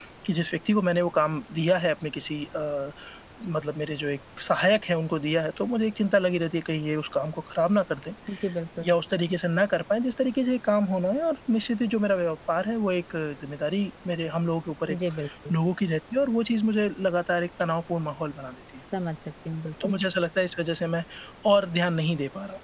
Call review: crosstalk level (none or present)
none